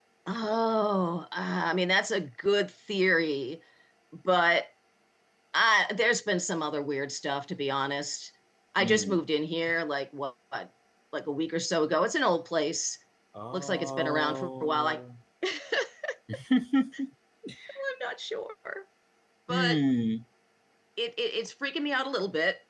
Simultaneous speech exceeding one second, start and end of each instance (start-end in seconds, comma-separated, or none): 13.5-15.0